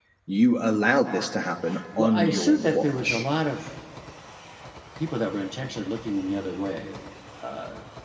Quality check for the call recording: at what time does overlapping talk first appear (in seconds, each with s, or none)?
2.0 s